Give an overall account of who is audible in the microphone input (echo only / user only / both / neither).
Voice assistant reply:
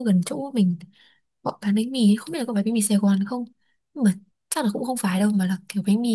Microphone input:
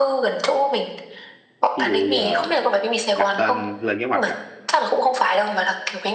both